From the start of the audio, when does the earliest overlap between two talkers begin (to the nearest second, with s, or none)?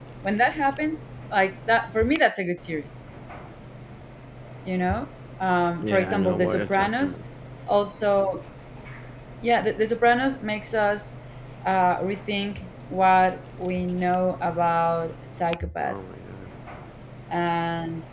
6 s